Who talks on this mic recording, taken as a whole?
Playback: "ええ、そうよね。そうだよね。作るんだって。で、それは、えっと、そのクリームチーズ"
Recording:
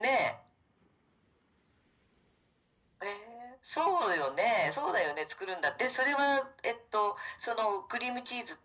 echo only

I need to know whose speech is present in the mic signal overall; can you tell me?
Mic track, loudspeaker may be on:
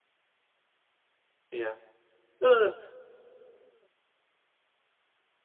user only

